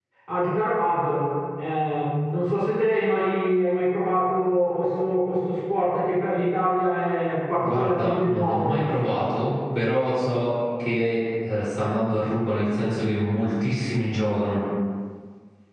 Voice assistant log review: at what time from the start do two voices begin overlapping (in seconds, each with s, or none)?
7.6 s